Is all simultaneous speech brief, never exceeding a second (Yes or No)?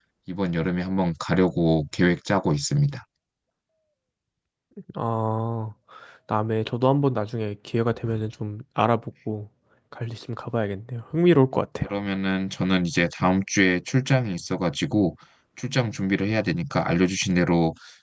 Yes